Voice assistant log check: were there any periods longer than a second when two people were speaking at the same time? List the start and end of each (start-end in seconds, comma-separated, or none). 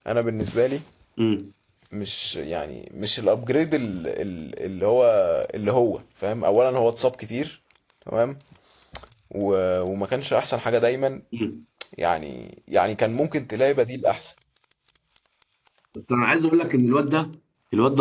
none